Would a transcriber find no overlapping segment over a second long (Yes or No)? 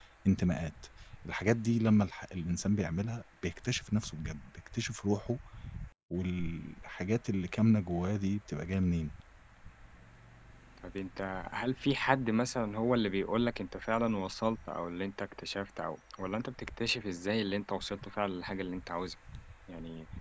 Yes